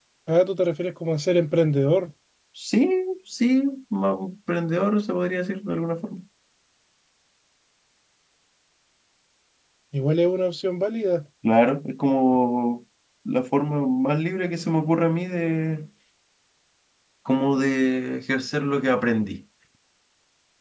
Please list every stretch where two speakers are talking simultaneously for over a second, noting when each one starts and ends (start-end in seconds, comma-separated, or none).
none